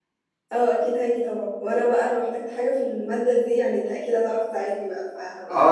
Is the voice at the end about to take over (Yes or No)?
Yes